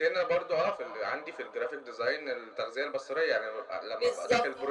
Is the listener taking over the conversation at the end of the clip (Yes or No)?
No